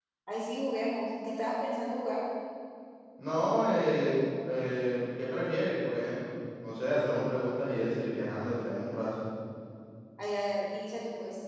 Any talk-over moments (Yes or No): No